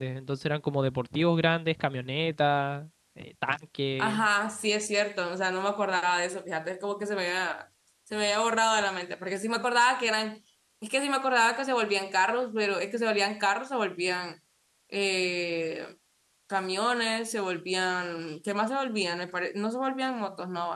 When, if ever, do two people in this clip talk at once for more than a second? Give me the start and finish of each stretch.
none

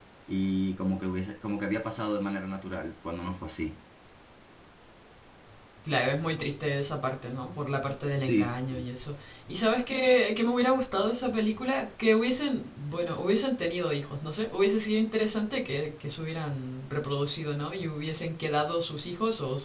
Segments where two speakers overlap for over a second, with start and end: none

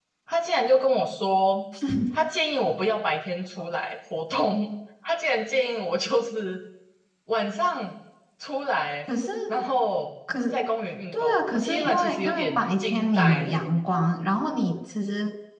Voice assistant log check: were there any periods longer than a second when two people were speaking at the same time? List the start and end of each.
11.1-13.6

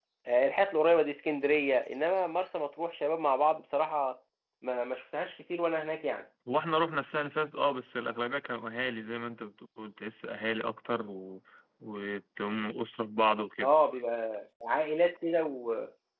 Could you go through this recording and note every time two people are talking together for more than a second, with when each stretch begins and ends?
none

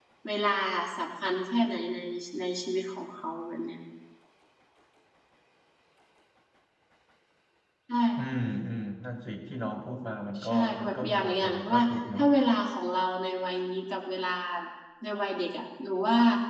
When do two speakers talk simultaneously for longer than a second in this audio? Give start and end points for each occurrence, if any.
10.4-12.2

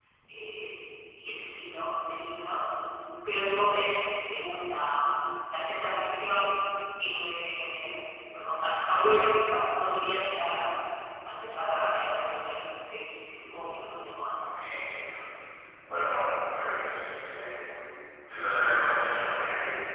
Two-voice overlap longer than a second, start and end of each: none

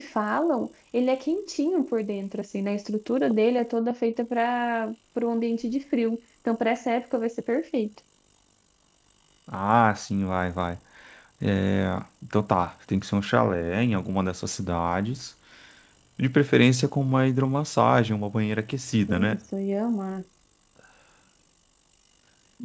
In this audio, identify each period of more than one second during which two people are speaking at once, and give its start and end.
none

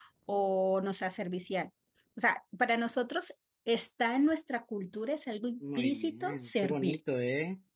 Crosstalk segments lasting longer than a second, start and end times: 5.8-7.0

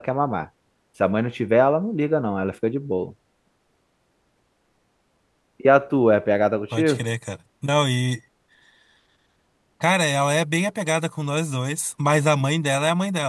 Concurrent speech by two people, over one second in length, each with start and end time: none

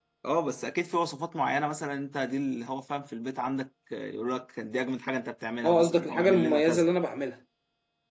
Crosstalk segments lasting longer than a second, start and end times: 5.6-6.9

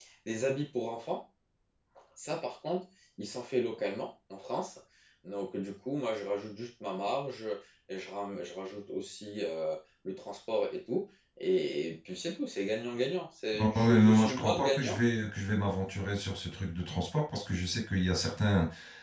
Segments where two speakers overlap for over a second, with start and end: 13.6-15.0

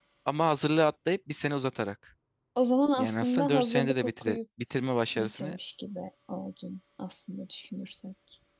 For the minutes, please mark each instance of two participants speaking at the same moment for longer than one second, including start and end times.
3.0-4.4

